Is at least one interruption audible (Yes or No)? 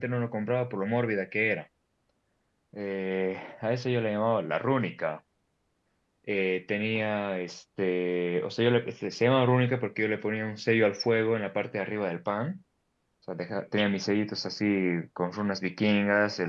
No